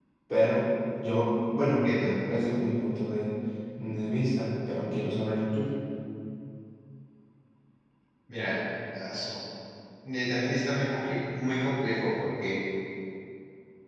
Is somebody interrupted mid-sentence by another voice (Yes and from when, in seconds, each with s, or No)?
No